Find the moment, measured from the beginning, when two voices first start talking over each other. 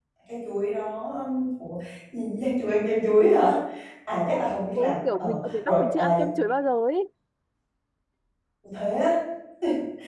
5 s

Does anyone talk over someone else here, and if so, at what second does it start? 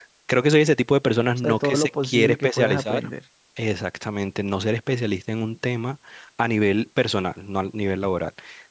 1 s

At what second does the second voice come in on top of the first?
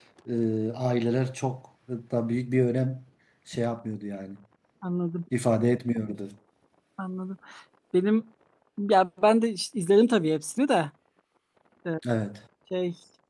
none

